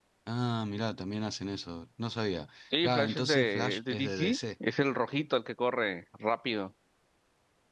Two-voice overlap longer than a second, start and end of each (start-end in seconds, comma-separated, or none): 2.8-4.4